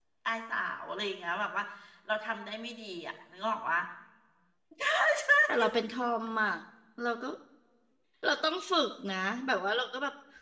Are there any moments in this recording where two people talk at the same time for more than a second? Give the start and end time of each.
none

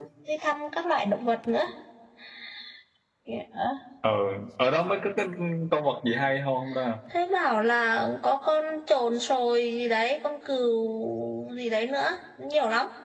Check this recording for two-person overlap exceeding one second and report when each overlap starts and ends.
none

